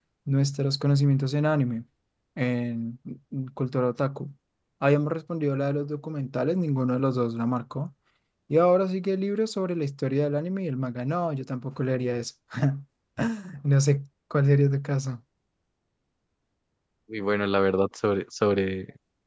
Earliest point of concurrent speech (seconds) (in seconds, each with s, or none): none